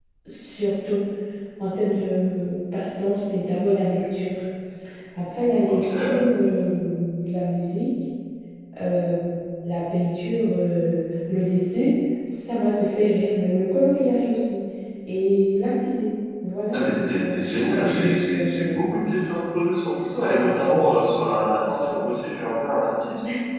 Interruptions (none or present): present